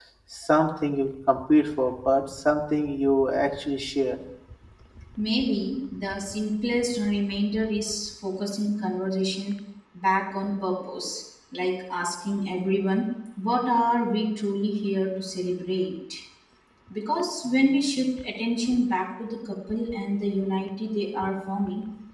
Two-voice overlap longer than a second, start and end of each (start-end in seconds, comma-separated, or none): none